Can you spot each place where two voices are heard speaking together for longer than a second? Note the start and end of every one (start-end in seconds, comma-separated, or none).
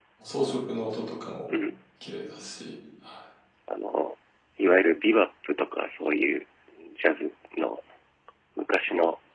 none